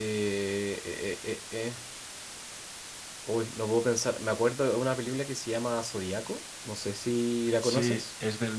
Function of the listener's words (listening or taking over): taking over